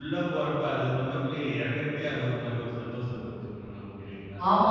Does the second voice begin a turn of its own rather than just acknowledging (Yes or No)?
Yes